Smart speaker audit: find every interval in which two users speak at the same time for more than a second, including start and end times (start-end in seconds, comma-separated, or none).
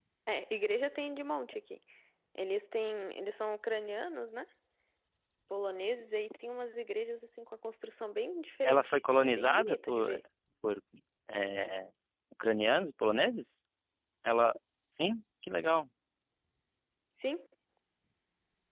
8.6-10.2